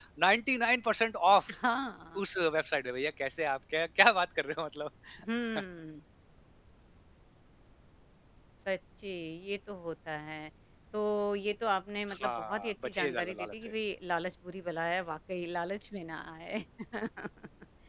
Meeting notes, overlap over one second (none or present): present